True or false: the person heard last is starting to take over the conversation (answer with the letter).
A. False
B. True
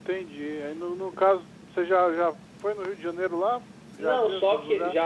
B